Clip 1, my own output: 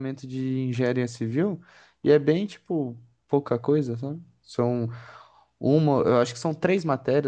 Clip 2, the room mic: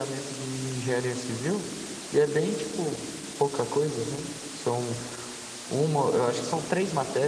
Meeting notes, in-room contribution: none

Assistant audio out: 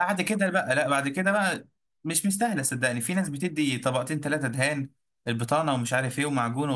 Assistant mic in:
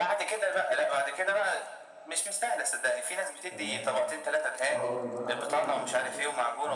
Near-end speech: present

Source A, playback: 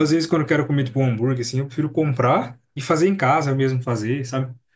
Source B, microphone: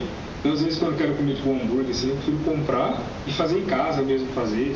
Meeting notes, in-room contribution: none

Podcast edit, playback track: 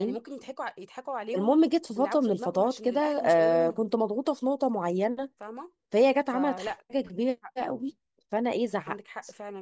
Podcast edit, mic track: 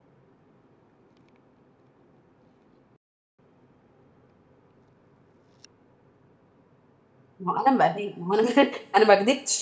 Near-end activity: present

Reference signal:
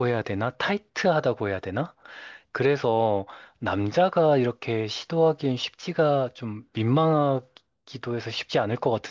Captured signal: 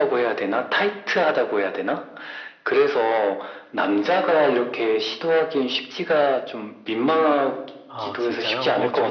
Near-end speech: present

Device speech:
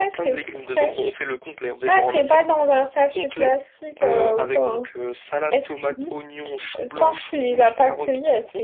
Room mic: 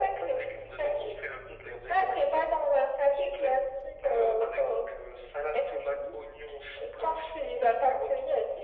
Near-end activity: none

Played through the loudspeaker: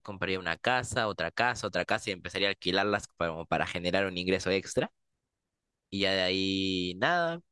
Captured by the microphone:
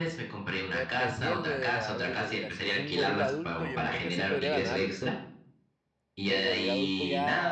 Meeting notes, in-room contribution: present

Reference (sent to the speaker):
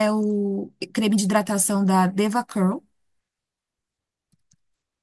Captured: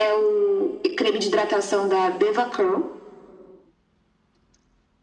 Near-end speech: none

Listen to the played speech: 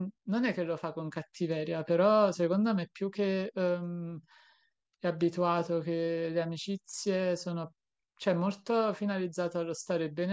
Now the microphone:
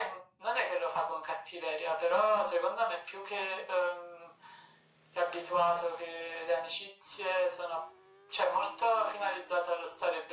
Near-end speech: none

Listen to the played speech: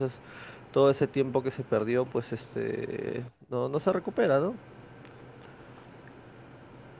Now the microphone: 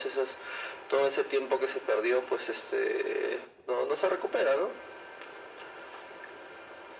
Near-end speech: none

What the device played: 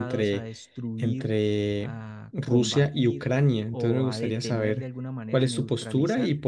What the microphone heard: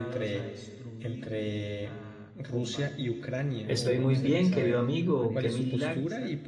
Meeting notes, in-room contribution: present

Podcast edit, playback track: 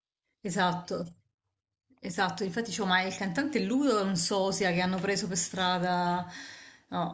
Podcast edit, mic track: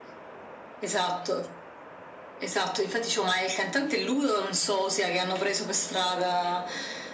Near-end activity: none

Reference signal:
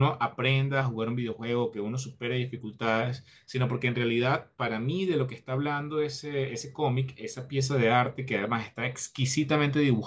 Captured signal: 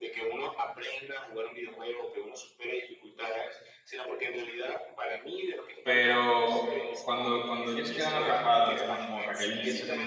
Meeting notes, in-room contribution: present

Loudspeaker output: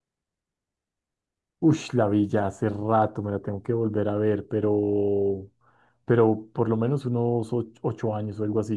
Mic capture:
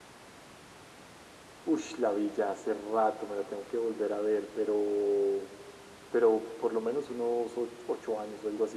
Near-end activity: none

